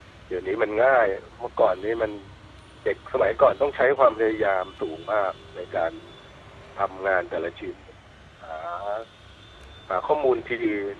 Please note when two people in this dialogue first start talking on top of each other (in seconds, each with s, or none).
none